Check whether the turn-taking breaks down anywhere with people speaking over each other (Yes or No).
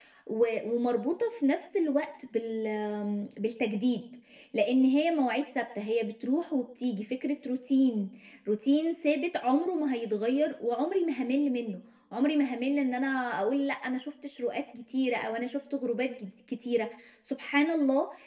No